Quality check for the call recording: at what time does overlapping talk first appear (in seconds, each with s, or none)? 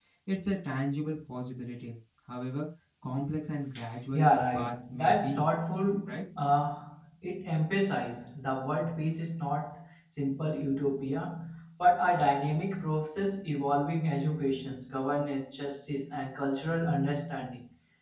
4.1 s